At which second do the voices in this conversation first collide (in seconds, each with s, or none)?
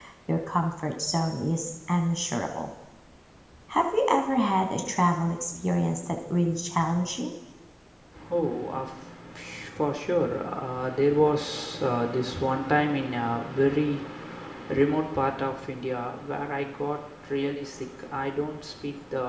none